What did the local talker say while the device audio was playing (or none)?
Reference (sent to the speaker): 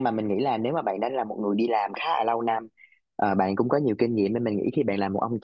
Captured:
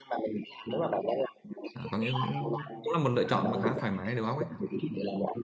à, có nghĩa cũng cũng là một lựa chọn mà khá thoải mái đầu óc ấy